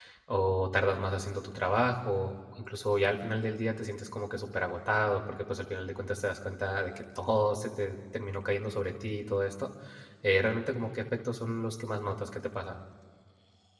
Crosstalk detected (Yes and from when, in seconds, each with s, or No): No